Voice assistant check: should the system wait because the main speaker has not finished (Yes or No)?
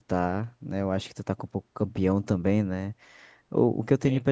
Yes